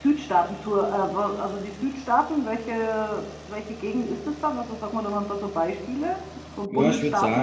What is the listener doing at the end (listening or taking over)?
taking over